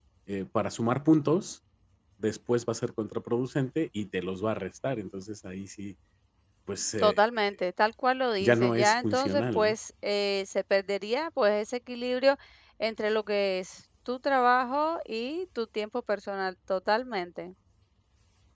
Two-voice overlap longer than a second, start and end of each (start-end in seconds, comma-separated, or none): 8.4-9.7